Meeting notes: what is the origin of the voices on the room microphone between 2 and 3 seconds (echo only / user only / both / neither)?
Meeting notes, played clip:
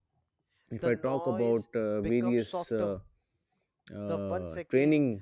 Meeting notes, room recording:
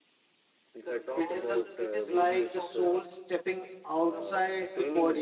both